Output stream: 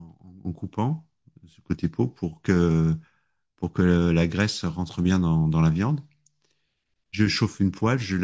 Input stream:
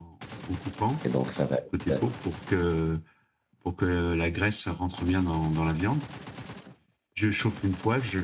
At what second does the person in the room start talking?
1.0 s

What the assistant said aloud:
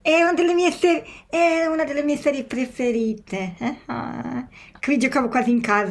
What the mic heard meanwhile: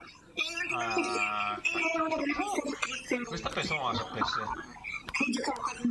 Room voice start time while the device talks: 0.7 s

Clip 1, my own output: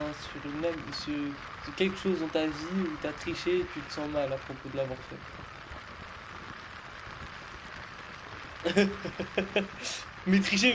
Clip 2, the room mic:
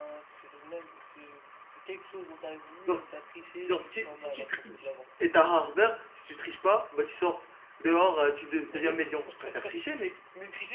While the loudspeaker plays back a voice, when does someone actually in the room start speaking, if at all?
2.9 s

